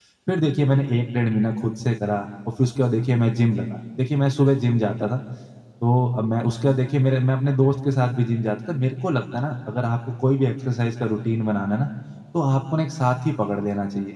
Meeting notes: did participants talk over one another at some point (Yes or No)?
No